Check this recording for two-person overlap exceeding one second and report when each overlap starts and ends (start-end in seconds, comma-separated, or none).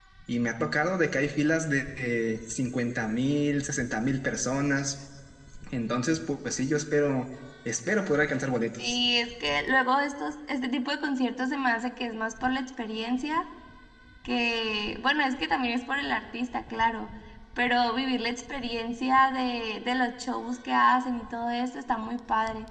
none